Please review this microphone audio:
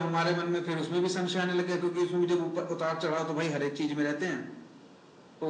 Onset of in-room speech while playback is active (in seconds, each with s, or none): none